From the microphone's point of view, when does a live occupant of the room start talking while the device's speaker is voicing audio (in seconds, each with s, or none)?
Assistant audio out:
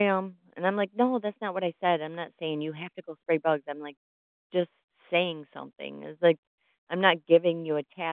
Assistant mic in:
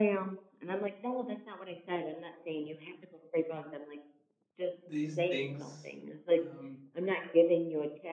4.8 s